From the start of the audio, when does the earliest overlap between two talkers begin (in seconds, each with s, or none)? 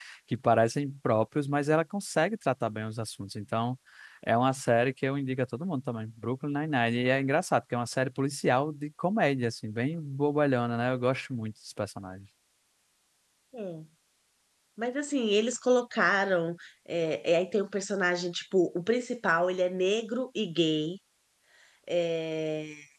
none